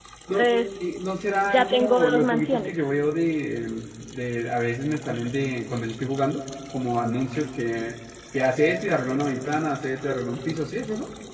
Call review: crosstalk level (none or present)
present